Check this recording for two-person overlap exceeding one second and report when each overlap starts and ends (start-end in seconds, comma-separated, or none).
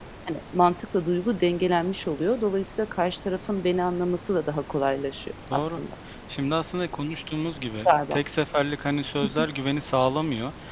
none